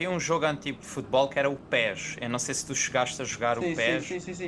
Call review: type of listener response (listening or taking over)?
taking over